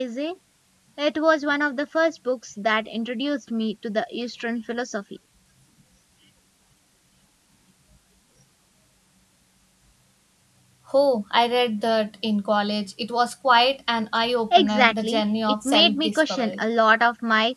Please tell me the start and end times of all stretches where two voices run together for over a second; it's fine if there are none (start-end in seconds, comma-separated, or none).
14.6-16.6